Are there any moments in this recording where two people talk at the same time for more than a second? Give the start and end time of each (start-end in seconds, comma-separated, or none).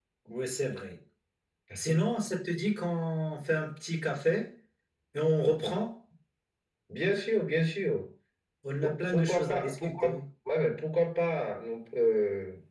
8.8-10.2